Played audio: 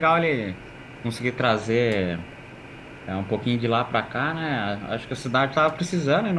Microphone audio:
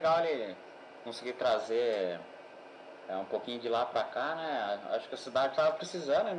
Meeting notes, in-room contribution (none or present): none